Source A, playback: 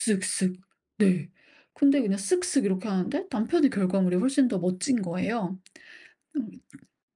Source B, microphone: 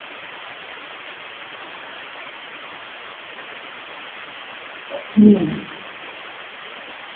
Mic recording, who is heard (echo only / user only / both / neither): user only